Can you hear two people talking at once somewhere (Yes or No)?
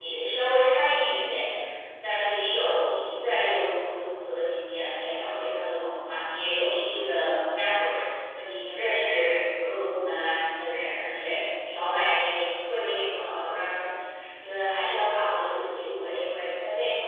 No